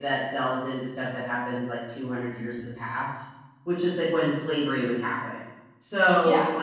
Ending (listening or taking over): listening